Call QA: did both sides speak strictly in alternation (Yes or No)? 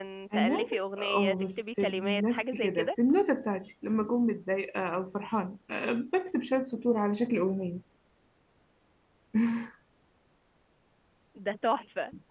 No